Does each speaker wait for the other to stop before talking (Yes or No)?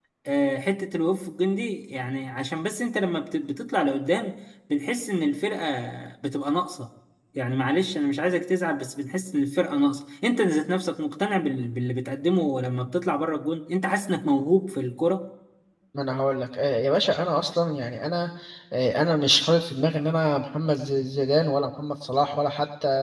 Yes